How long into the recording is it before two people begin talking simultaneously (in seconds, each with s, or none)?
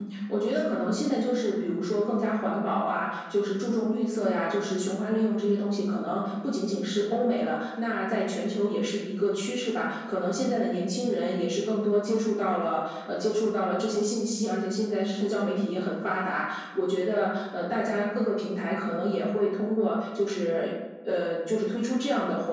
none